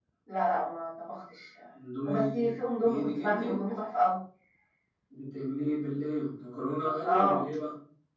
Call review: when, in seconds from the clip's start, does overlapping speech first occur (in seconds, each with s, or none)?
2.1 s